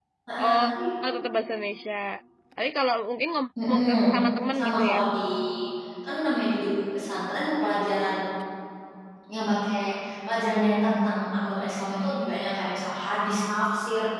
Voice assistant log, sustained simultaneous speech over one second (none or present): none